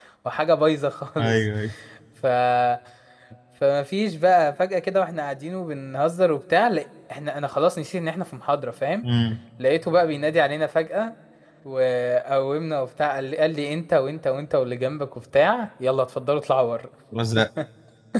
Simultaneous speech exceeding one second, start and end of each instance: none

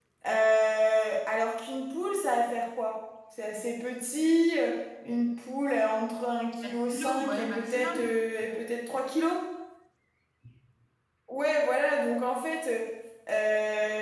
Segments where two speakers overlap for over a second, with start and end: 6.6-8.1

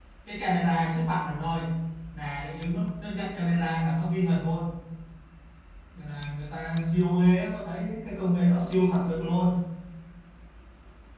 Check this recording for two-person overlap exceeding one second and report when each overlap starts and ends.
none

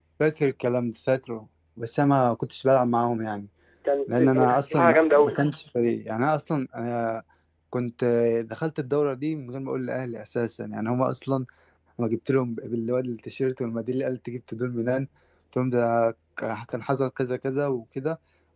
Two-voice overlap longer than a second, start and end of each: 4.1-5.4

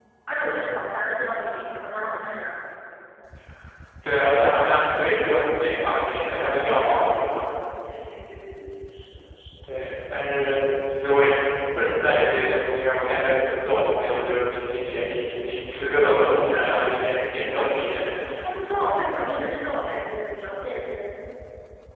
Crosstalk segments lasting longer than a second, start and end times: none

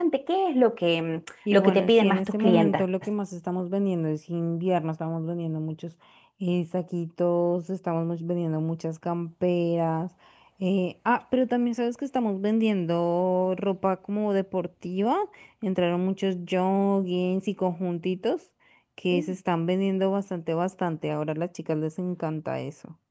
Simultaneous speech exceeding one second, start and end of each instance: 1.5-2.8

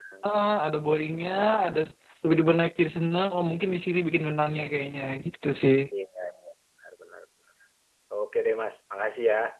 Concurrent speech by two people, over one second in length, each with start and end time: none

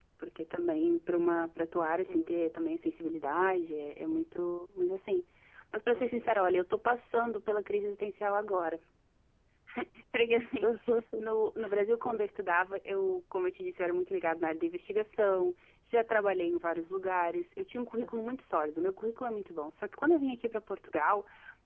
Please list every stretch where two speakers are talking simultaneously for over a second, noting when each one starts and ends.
none

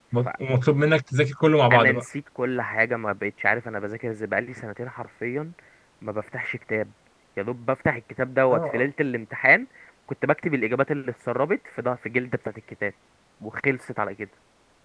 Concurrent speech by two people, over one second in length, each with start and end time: none

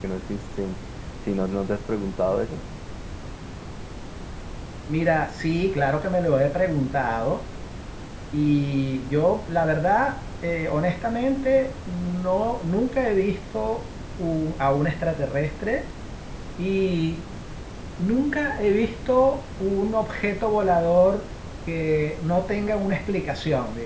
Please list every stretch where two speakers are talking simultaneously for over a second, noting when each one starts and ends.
none

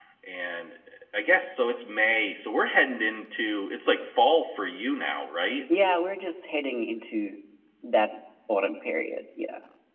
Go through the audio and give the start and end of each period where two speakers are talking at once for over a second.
none

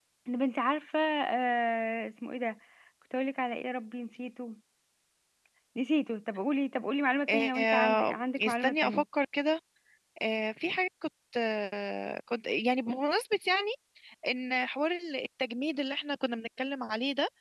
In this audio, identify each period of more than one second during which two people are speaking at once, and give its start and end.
7.3-9.0

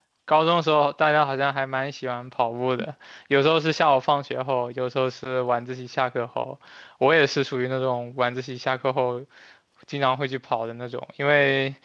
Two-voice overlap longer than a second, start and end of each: none

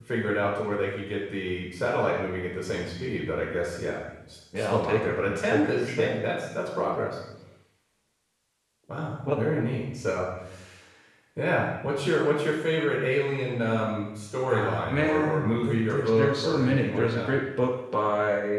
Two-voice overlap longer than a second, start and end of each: 4.5-6.1, 14.5-17.3

